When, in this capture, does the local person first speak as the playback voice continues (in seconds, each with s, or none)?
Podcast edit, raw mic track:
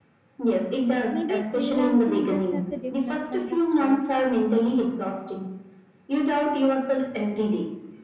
1.1 s